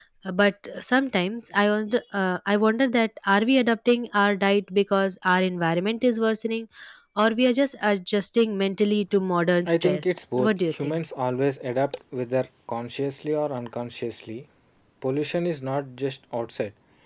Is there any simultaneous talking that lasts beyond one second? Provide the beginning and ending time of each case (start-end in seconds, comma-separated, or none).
9.7-11.0